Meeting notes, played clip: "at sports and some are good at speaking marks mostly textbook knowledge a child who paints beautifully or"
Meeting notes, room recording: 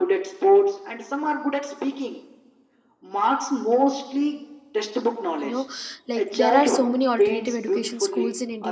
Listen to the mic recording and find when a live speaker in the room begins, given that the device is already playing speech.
5.4 s

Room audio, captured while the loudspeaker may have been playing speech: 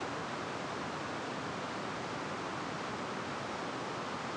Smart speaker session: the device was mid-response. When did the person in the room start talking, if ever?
none

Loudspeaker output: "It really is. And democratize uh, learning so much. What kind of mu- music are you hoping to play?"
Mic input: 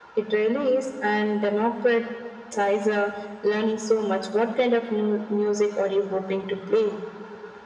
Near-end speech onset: none

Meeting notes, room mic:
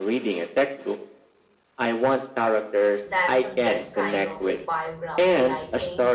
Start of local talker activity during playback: 3.0 s

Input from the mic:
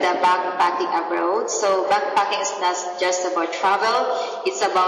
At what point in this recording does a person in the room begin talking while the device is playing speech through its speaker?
none

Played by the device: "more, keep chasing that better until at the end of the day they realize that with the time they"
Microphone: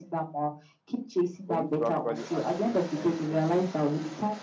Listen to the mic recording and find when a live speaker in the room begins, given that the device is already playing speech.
1.4 s

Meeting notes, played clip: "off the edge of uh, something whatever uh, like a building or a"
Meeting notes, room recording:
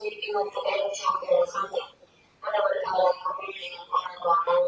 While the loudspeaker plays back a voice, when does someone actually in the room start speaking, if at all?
none

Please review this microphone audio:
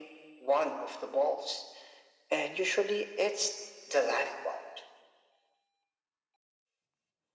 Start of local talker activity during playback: none

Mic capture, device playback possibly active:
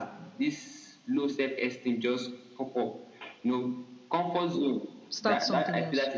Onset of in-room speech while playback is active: 5.1 s

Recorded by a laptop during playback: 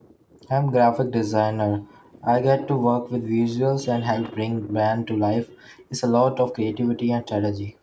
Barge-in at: 0.5 s

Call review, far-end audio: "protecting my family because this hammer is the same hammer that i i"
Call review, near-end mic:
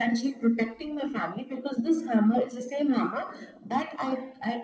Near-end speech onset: none

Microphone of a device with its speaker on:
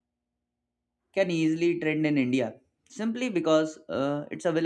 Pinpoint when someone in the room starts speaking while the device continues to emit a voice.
1.1 s

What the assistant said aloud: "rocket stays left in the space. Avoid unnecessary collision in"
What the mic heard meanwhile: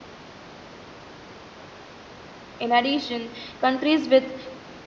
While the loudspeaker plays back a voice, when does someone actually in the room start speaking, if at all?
2.6 s

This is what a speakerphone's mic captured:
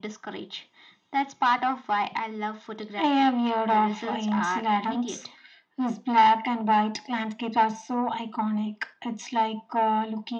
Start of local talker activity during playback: none

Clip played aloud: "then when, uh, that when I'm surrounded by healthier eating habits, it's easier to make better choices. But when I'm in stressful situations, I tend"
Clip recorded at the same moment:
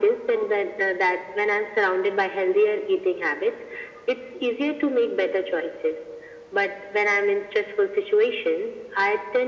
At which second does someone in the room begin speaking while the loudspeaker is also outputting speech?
none

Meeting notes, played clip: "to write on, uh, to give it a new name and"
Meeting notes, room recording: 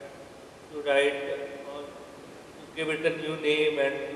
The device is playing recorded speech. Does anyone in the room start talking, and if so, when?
none

